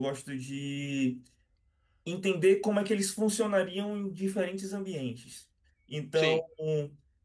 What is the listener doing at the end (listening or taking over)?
listening